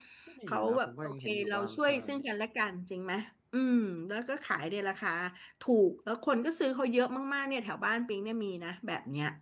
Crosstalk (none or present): present